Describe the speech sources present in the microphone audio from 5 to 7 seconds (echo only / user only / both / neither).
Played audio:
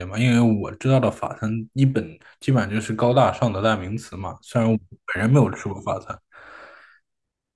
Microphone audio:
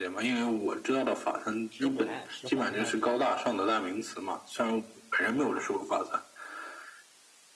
echo only